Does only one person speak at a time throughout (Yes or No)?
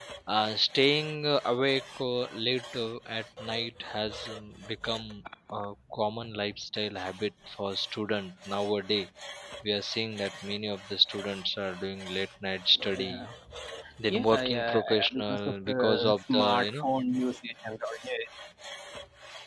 No